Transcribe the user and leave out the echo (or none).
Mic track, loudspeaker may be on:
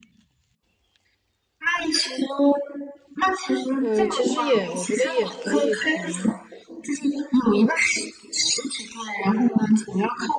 呃，其实也我觉得也可以从